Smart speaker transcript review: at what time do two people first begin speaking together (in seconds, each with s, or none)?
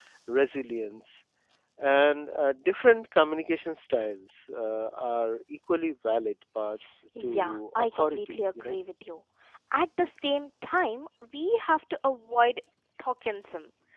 7.2 s